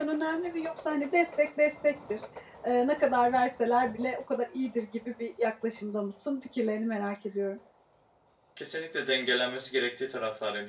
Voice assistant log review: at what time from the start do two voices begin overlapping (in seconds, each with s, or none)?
none